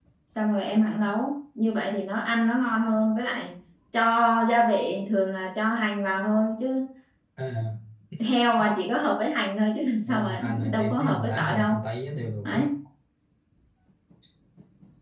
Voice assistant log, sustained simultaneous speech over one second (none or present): present